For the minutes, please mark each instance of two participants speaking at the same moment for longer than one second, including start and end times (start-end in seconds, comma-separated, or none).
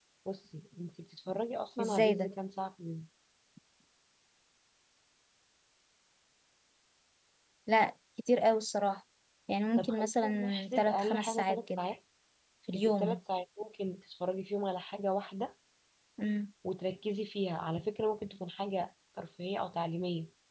9.8-11.8